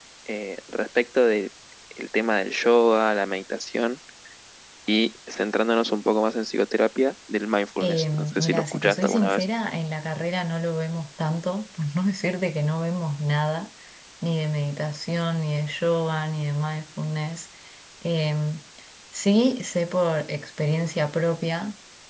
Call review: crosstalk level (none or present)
present